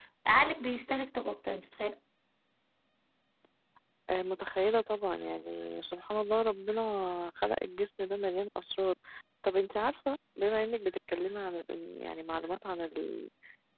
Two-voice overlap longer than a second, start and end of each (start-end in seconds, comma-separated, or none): none